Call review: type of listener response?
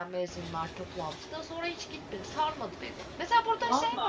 listening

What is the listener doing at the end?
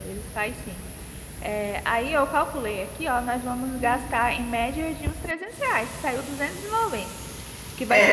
listening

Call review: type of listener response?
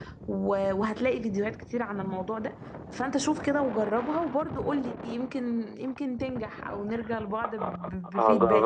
taking over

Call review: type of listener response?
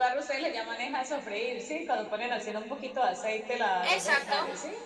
taking over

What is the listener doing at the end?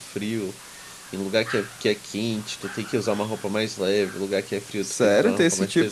taking over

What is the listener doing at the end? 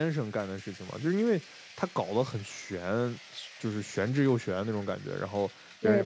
listening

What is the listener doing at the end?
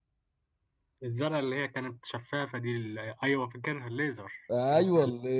taking over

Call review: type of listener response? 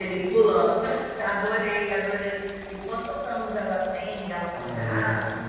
taking over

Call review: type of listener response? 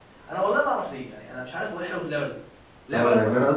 taking over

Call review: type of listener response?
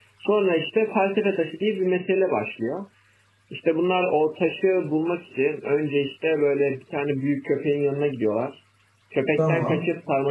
listening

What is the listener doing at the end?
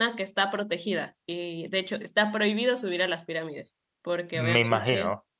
listening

